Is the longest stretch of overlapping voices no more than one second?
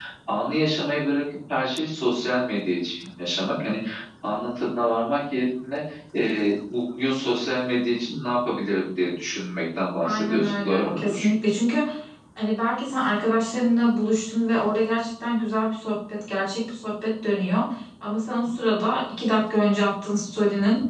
No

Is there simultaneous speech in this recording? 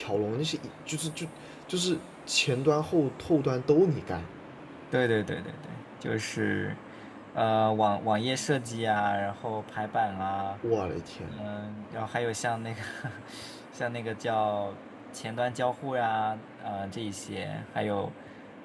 No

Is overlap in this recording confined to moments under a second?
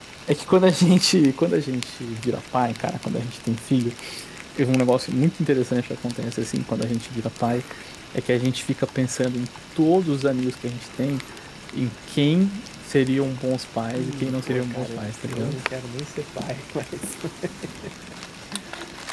No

